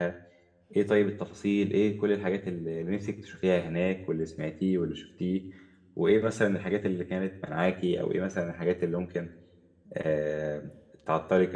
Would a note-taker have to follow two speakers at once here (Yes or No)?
No